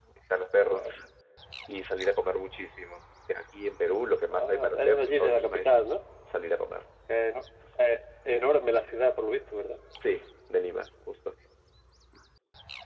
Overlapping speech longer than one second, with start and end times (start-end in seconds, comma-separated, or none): 4.3-5.7